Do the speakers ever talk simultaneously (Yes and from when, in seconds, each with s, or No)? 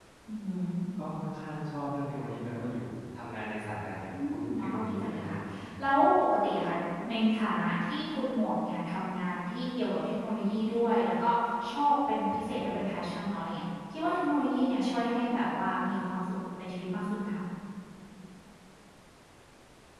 Yes, from 4.1 s